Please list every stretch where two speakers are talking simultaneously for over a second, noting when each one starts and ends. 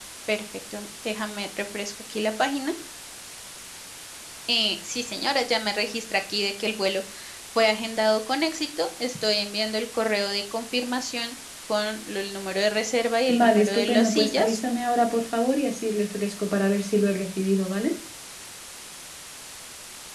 13.3-14.6

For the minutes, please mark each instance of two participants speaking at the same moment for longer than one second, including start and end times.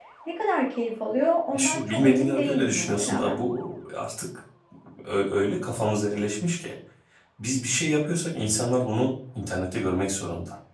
1.5-3.4

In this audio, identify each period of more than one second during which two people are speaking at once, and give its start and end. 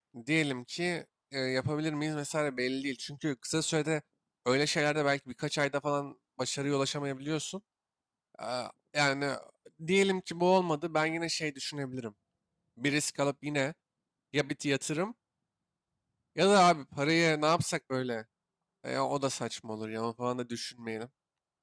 none

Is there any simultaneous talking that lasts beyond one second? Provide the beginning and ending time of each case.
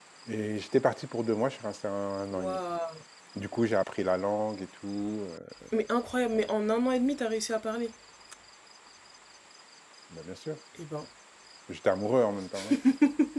none

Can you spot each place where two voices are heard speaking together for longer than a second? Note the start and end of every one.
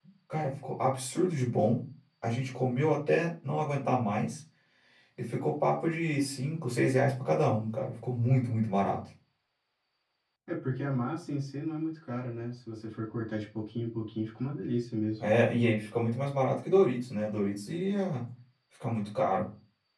none

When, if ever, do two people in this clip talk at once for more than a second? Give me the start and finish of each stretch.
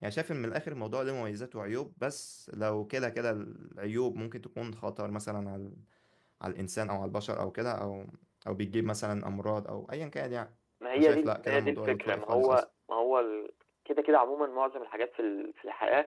11.0-12.6

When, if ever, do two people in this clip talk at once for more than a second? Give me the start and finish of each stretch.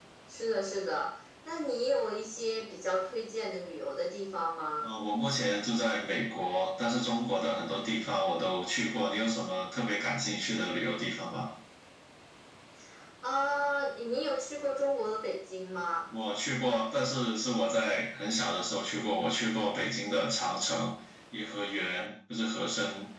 none

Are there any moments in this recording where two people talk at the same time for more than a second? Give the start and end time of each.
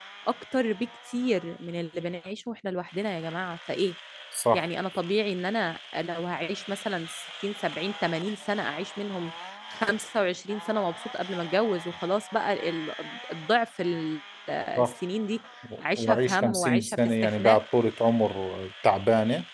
16.0-17.6

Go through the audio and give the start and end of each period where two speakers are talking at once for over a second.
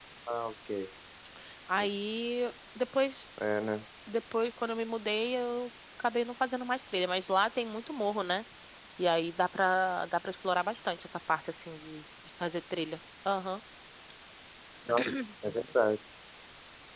none

